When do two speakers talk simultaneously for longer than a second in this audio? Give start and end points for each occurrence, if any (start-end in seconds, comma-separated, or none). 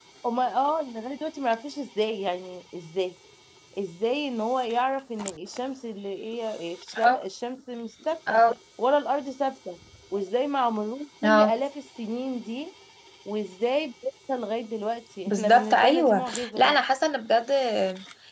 15.3-16.8